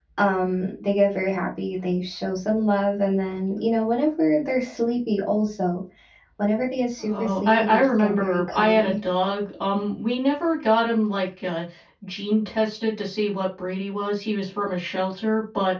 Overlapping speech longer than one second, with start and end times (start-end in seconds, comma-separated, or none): 7.0-8.9